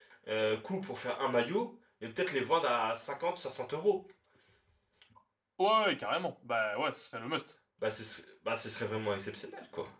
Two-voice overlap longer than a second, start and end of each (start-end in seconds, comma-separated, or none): none